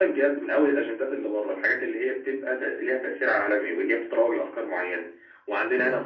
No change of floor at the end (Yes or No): Yes